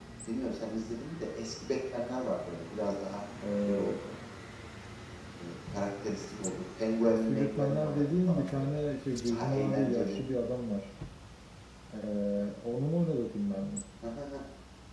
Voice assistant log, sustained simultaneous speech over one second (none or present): present